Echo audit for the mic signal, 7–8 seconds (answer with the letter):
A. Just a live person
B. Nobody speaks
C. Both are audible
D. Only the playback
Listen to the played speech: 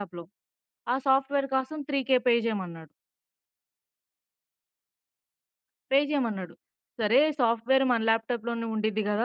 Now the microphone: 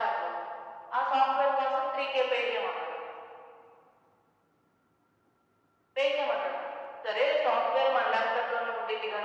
D